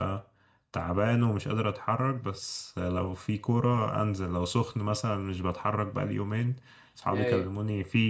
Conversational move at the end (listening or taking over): listening